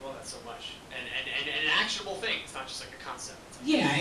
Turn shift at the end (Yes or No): Yes